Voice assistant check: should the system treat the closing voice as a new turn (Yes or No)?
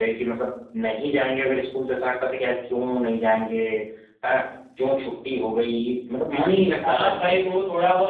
Yes